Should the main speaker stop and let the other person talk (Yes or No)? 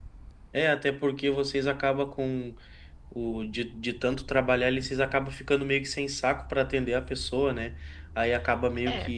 No